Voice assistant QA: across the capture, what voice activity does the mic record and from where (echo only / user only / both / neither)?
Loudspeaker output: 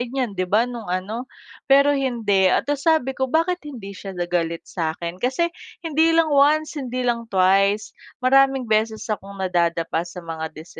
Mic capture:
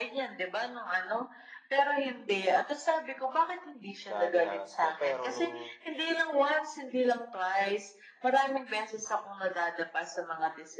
both